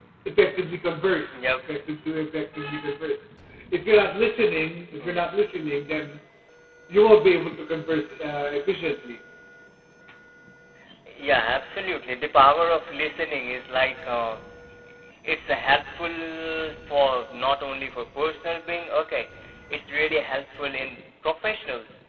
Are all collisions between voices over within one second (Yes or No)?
Yes